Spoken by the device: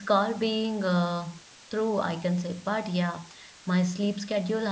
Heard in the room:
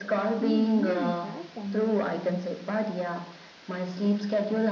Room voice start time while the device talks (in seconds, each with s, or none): 0.4 s